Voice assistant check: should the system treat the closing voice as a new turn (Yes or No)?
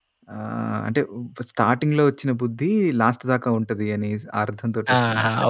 Yes